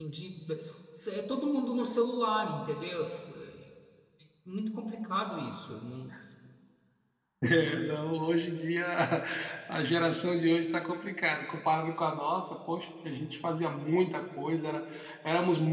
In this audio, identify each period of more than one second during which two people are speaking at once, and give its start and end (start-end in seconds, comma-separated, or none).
none